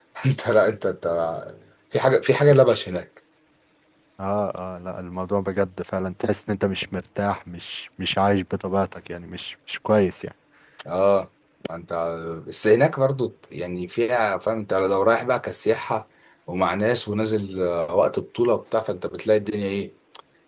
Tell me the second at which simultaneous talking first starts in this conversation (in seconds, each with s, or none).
none